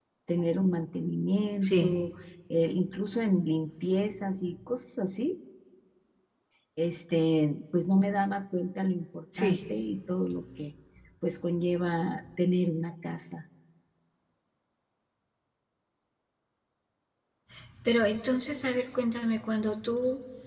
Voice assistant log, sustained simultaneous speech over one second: none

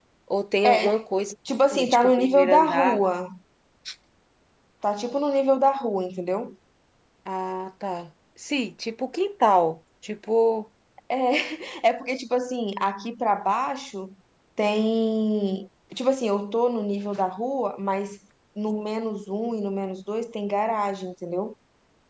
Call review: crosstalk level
present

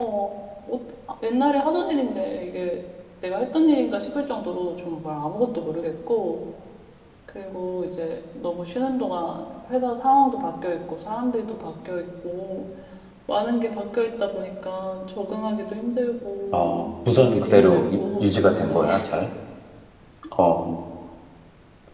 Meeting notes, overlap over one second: present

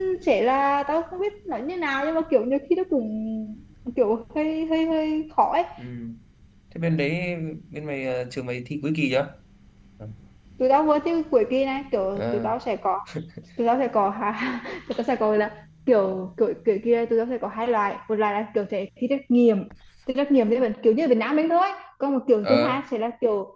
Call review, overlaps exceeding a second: none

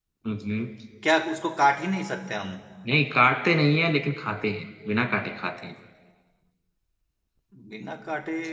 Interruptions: none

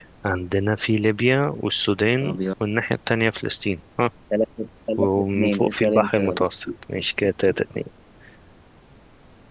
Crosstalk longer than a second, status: present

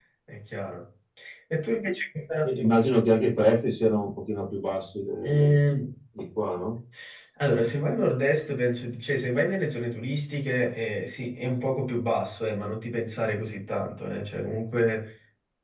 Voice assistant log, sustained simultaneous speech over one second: none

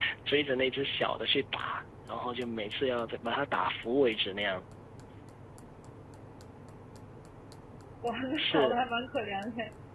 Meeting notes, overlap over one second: none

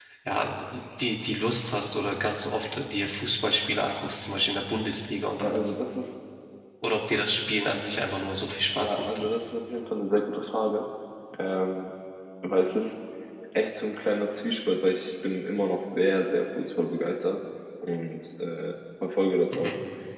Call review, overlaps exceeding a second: none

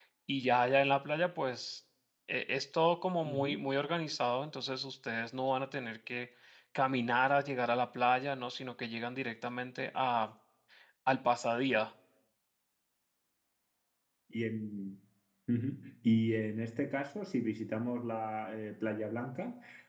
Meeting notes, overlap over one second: none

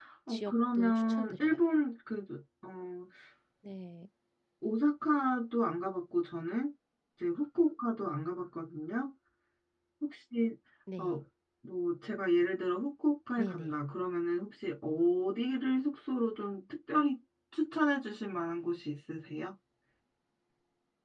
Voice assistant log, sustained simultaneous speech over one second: present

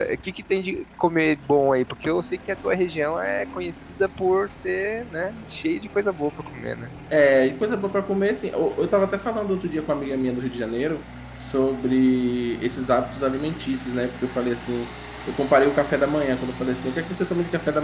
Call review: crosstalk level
none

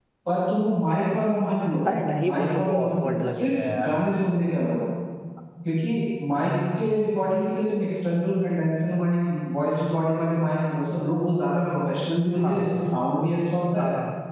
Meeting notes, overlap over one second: present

